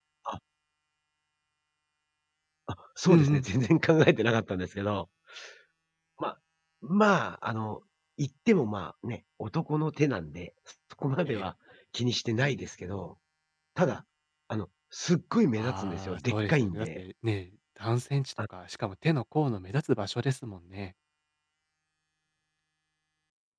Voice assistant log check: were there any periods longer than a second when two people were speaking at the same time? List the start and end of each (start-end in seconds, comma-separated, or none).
15.6-17.0